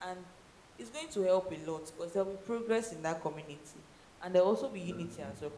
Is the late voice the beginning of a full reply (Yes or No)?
No